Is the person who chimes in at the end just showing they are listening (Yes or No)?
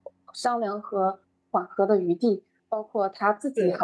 Yes